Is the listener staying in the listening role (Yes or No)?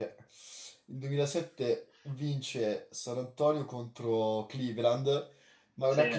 Yes